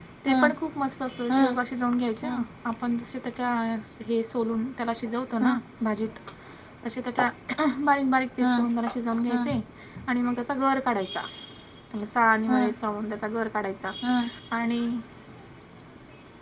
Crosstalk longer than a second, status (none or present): none